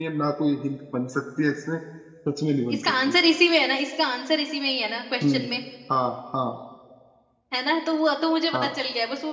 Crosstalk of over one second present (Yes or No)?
No